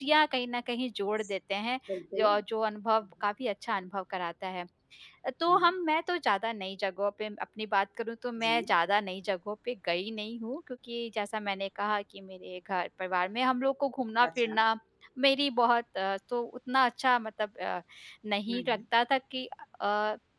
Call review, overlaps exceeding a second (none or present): none